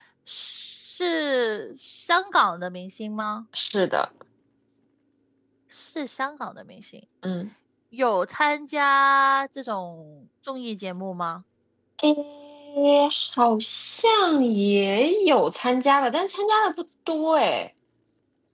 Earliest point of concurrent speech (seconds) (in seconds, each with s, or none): none